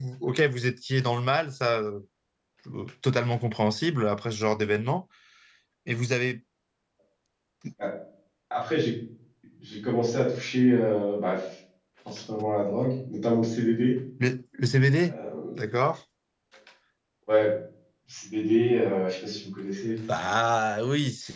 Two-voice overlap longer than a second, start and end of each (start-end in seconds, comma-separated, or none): none